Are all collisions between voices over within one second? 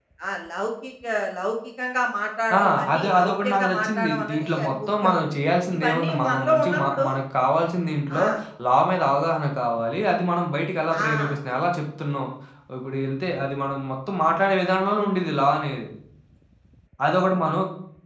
No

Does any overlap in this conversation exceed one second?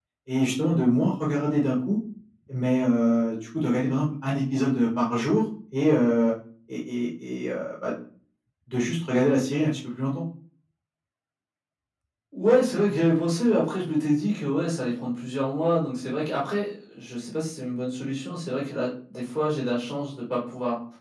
No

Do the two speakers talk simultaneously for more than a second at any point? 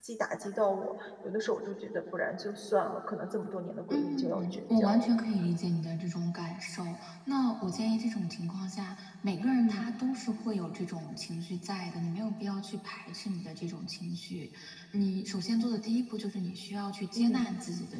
Yes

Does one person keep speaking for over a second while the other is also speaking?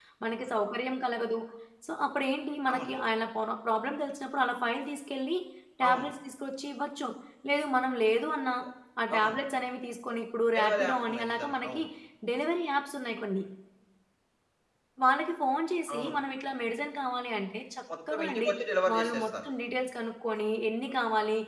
Yes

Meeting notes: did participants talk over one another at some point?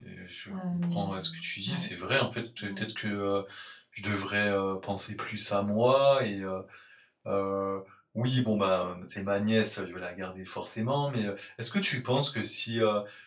Yes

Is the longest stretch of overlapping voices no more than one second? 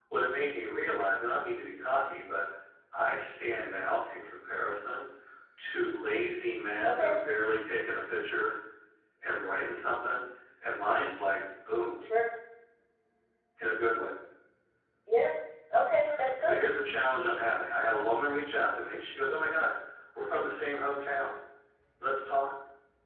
Yes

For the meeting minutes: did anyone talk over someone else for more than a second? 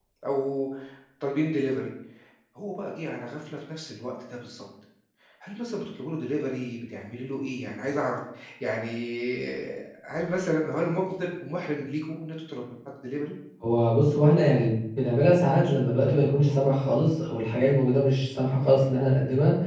No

